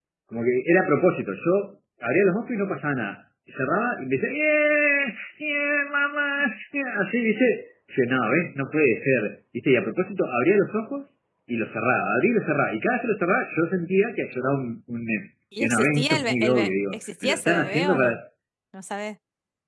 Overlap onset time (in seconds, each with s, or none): 15.5 s